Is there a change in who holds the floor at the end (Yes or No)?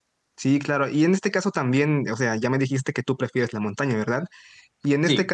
No